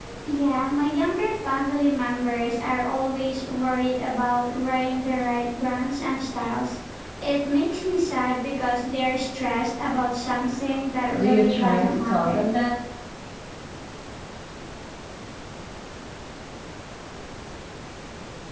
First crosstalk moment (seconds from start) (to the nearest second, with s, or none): 11 s